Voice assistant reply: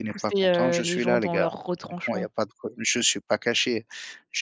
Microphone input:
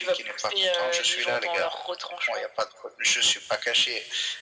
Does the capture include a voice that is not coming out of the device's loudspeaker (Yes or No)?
No